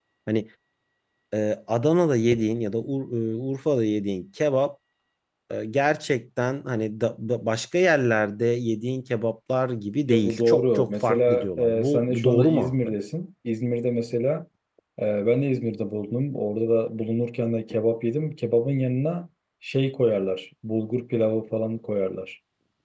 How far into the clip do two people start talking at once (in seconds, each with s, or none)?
10.1 s